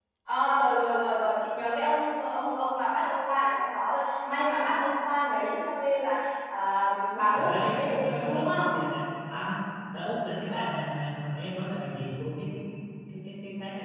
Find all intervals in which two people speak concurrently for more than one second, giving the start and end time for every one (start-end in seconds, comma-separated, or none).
7.3-8.7